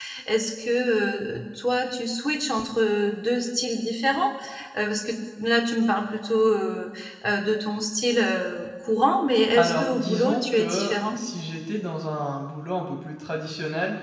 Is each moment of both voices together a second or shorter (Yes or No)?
No